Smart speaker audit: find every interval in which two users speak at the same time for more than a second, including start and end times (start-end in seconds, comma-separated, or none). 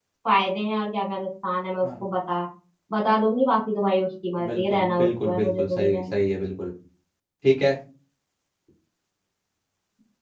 4.5-6.3